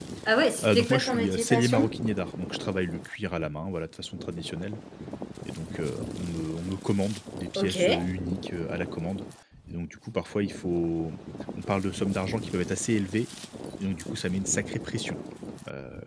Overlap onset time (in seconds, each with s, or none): 0.6 s